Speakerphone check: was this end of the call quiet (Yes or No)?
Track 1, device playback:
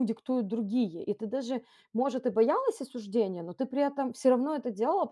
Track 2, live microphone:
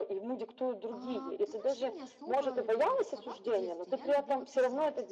No